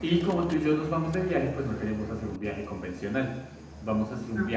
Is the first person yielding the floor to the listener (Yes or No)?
No